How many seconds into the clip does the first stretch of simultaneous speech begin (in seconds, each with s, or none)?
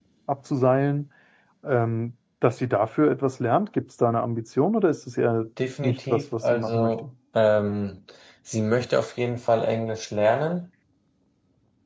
5.6 s